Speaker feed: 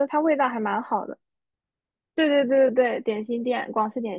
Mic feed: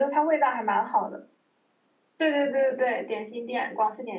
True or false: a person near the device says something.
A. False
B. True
A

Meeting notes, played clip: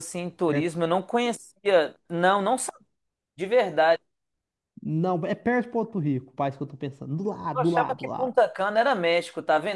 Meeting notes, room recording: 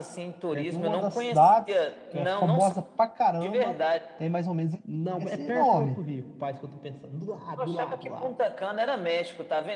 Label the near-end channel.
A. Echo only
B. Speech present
B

